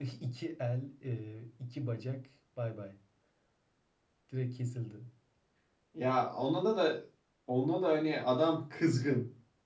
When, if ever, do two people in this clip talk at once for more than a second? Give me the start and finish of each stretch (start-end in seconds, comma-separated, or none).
none